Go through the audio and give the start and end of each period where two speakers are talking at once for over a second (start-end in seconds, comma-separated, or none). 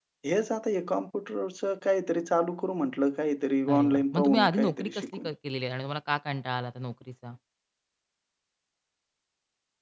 3.7-5.3